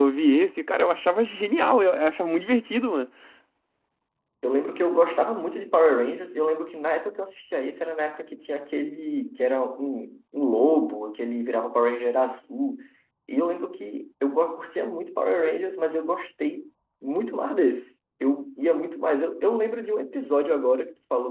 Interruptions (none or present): none